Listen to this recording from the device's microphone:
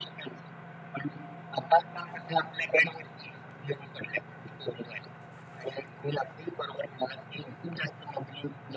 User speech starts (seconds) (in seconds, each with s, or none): none